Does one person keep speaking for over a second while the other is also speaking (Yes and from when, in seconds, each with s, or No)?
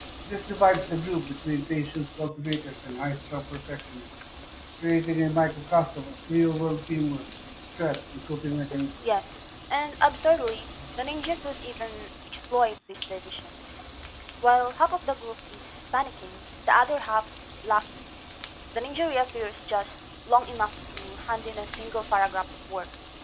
No